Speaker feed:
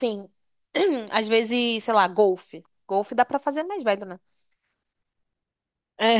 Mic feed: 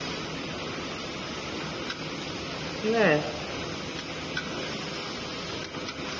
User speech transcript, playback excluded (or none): né?